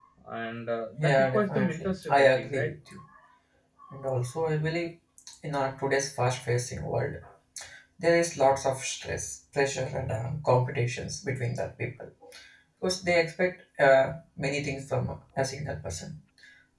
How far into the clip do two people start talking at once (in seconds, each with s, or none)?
1.0 s